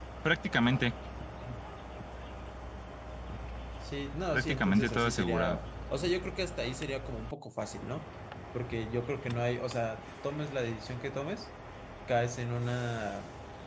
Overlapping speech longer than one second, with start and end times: 4.3-5.6

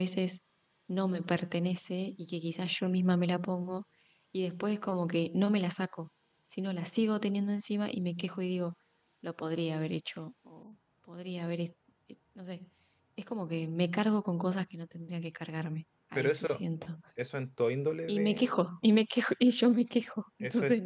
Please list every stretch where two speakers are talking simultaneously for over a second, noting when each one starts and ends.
none

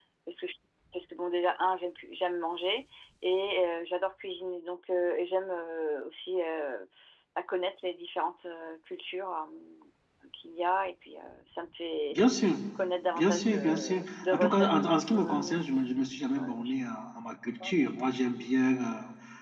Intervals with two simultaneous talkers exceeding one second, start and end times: 13.2-15.6

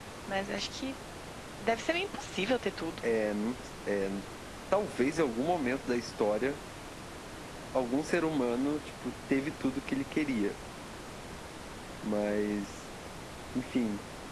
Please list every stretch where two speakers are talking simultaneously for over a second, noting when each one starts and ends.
none

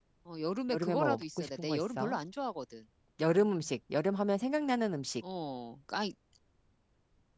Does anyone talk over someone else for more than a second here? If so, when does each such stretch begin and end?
0.7-2.2

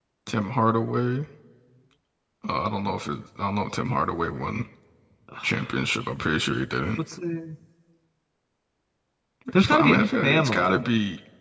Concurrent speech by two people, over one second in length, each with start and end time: 9.6-10.8

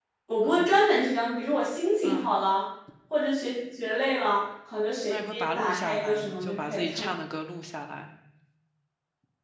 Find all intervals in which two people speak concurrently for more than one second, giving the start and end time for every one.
5.1-7.1

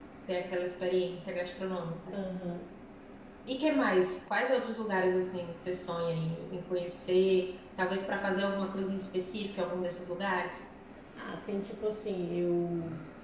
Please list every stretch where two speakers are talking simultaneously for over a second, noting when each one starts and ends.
none

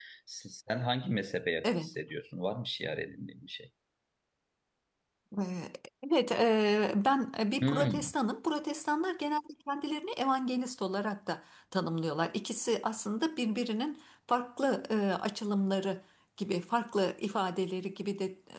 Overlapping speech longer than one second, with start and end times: none

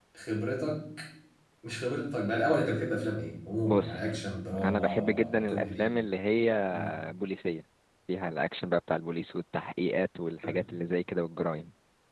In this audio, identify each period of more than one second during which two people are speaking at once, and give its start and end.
4.6-5.9

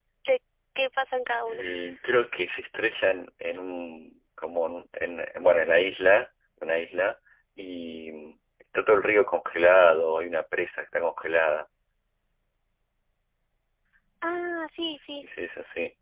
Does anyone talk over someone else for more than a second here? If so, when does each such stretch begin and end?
none

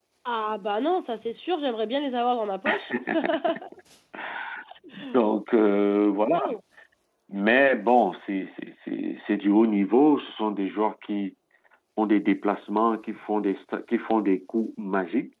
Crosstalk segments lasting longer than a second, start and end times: none

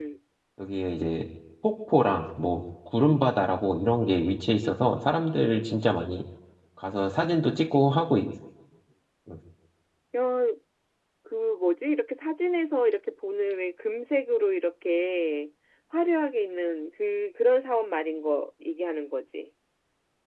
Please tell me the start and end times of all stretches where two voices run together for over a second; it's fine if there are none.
none

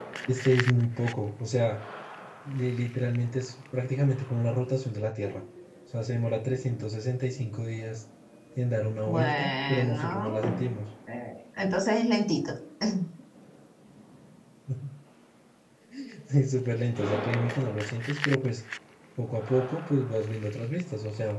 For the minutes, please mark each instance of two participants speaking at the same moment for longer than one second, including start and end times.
9.1-10.5

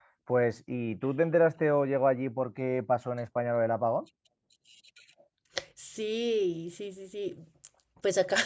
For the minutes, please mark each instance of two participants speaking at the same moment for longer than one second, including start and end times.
none

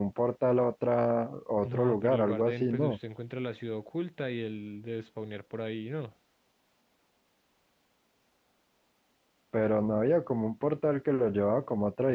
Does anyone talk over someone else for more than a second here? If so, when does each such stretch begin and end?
1.6-3.0

